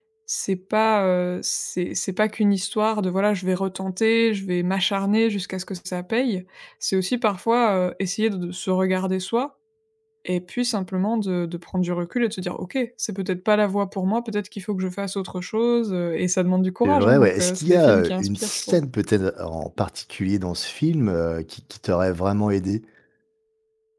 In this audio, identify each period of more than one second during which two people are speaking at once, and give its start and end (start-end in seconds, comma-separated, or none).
16.8-18.8